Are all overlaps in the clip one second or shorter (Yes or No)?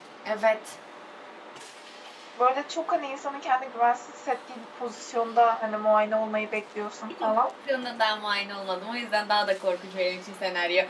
Yes